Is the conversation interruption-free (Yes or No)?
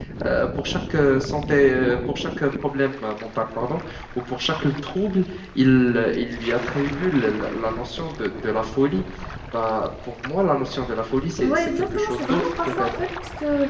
No